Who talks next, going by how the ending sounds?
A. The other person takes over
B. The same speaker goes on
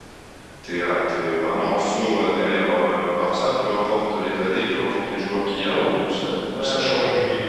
A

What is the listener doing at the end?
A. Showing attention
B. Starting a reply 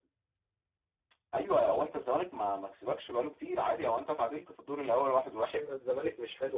B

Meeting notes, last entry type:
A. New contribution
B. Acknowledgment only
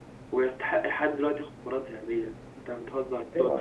B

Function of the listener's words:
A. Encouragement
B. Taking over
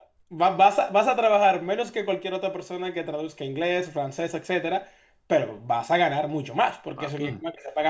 A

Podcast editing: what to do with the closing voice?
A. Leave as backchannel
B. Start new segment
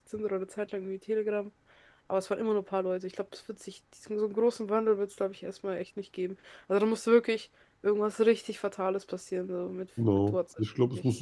B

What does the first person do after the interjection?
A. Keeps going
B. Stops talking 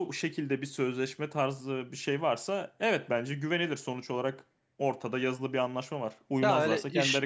B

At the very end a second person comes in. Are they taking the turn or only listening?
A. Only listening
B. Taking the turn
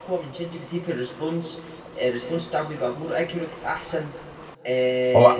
A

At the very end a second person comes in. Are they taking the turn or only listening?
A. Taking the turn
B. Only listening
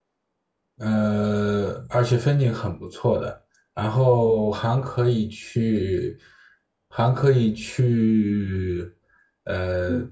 A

